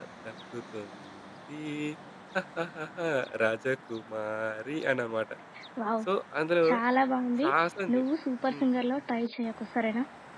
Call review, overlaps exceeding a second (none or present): none